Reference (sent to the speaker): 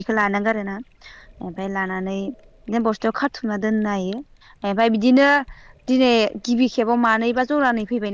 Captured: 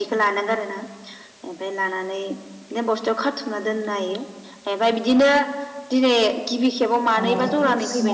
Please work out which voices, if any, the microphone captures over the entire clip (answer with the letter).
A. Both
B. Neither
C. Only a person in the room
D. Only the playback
A